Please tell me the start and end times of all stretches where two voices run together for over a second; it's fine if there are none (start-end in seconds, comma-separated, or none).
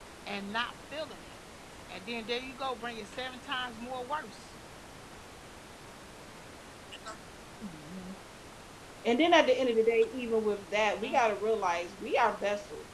none